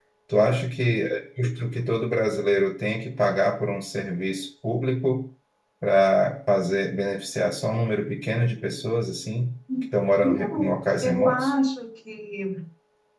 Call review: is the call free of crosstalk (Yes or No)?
No